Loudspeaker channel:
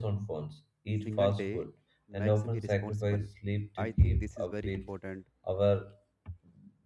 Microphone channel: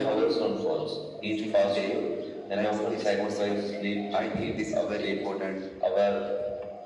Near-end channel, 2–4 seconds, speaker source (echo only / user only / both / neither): echo only